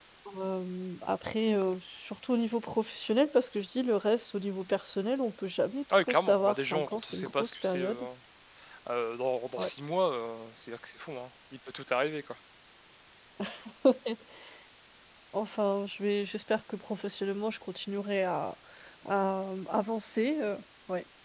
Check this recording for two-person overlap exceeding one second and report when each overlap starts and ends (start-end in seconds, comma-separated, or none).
5.9-8.1